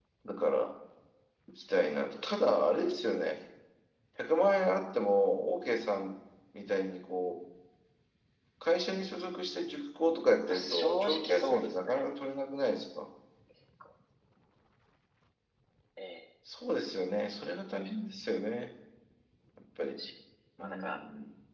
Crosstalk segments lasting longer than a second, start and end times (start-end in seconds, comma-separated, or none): 10.5-12.0